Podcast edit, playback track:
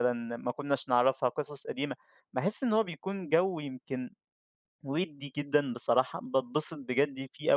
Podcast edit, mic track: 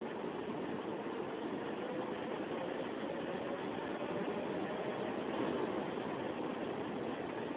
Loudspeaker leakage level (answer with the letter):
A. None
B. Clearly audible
A